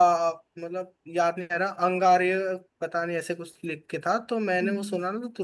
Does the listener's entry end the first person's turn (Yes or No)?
Yes